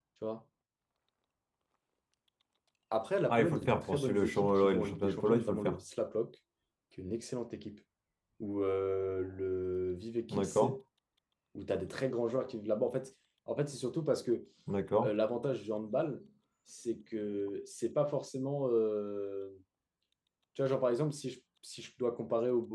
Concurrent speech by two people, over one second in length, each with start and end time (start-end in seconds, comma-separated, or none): 3.3-5.8